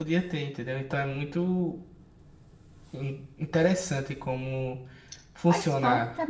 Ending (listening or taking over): taking over